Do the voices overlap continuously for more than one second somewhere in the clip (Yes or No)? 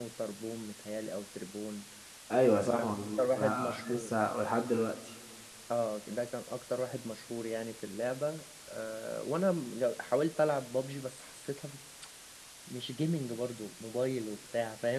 Yes